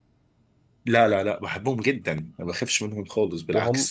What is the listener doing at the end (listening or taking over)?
taking over